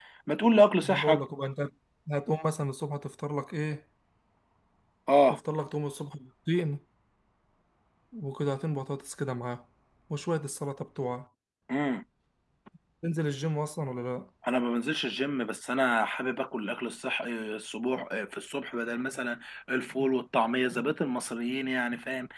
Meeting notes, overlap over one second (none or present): none